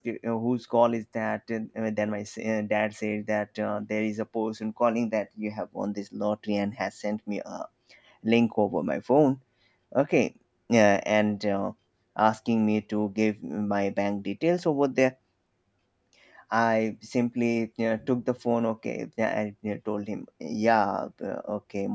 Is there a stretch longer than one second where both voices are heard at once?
No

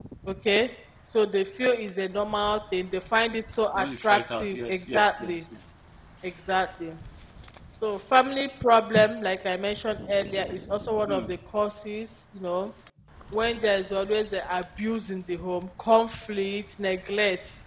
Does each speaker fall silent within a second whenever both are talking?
No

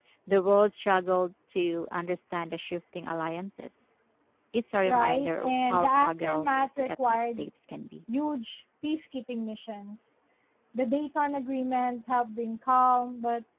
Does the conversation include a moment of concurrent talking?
Yes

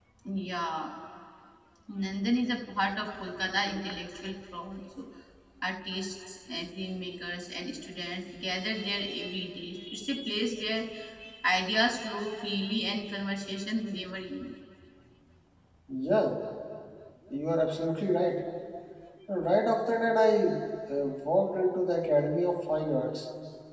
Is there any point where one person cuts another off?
No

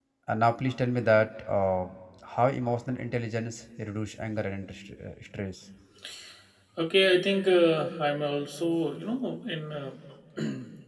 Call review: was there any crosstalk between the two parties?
No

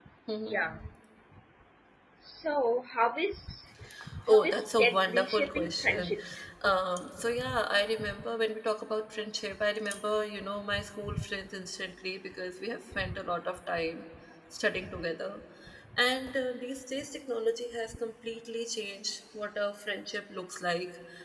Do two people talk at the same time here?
Yes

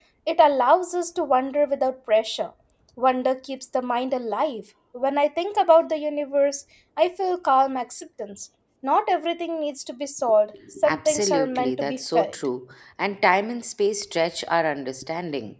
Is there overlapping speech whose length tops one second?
Yes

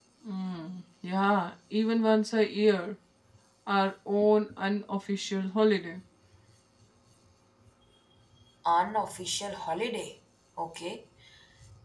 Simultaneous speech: No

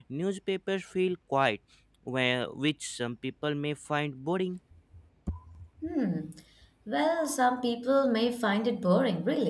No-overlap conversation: Yes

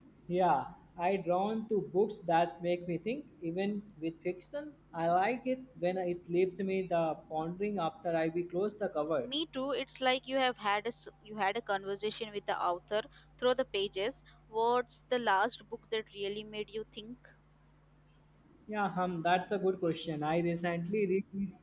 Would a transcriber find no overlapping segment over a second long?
Yes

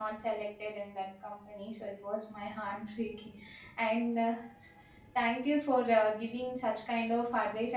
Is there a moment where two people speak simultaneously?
No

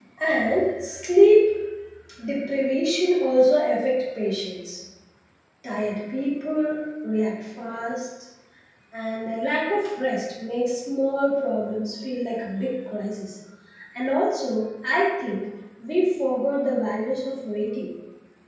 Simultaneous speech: No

